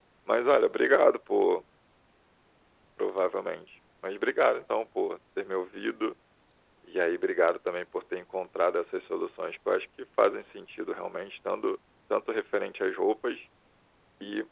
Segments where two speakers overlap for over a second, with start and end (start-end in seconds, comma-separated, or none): none